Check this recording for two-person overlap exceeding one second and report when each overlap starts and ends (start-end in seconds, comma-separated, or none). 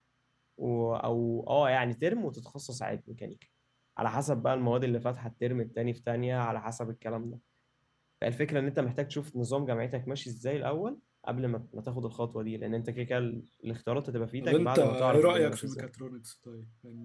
14.4-15.9